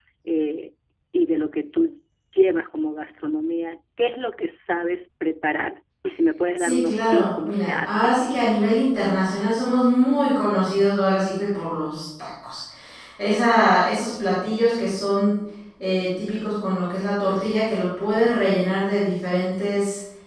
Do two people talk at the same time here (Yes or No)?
Yes